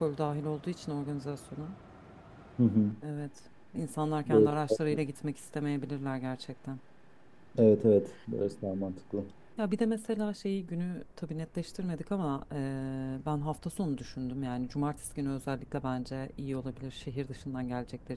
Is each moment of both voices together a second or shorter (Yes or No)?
Yes